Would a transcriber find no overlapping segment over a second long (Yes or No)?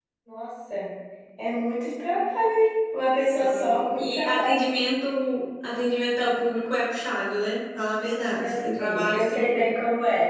No